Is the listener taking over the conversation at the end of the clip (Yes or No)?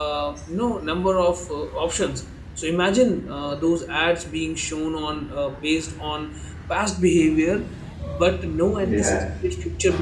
No